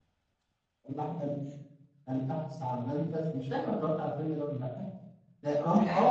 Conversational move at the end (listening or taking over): listening